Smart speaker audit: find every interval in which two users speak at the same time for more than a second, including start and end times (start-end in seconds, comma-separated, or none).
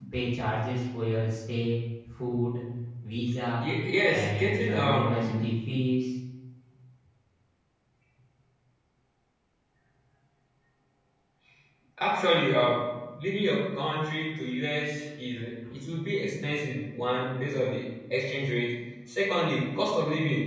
4.1-5.4